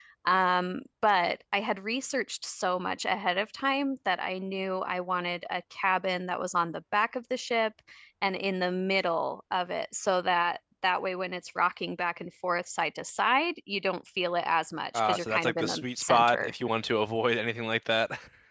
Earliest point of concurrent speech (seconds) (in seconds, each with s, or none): 14.9 s